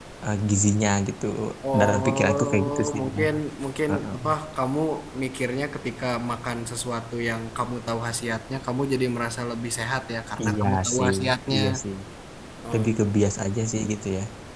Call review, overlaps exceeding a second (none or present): present